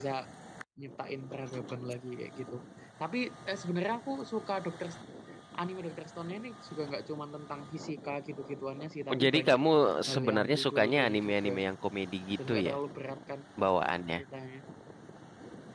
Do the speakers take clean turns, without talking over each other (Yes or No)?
No